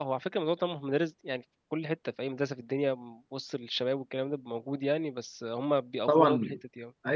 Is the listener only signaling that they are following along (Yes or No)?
No